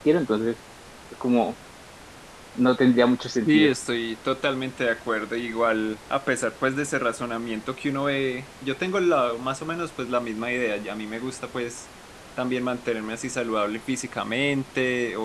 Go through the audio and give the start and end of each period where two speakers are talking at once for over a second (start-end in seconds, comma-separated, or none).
none